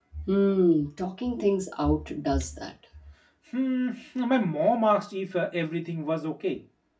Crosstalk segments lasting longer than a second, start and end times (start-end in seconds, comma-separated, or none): none